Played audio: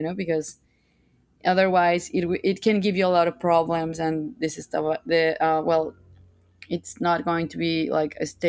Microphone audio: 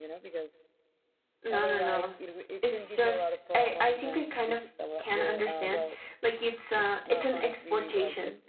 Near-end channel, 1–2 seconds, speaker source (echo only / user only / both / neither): both